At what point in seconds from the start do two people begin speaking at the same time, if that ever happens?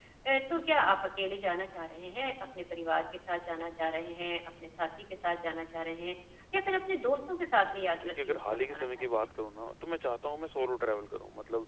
8 s

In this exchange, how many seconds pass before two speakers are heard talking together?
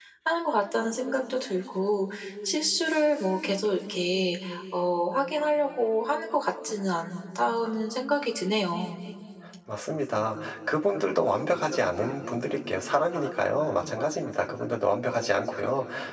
none

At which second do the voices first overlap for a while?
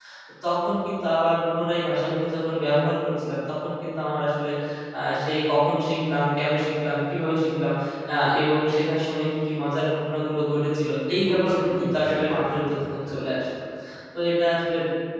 11 s

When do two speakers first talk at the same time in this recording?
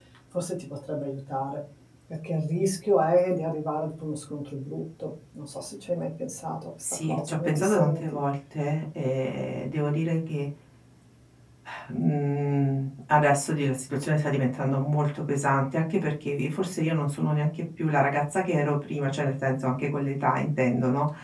7 s

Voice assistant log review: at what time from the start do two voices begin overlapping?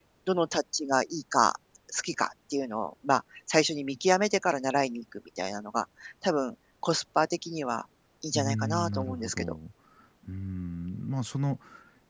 8 s

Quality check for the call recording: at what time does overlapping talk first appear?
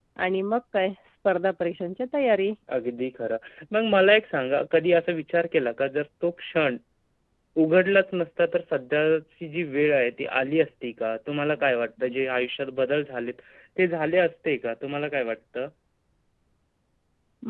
none

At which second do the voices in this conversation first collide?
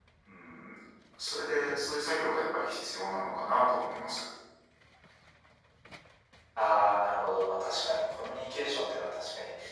none

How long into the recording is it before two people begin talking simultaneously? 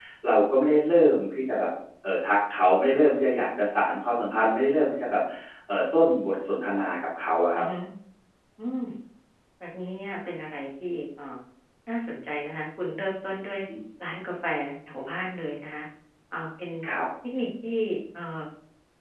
none

